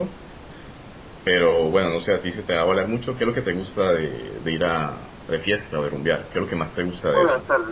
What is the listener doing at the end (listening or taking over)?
taking over